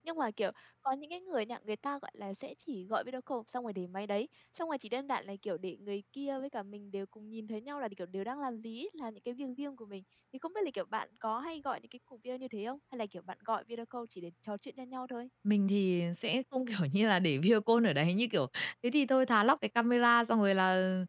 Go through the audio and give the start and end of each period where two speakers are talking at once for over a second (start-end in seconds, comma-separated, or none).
none